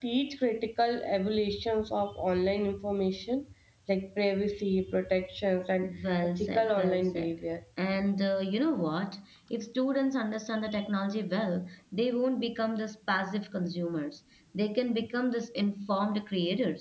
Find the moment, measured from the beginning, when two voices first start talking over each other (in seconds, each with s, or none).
5.8 s